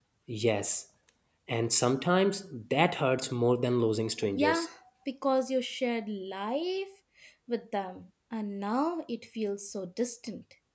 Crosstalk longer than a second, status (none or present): none